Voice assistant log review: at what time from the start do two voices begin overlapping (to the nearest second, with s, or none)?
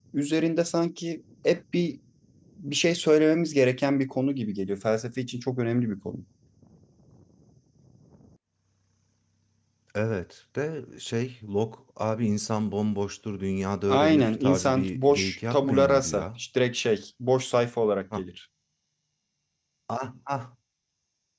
14 s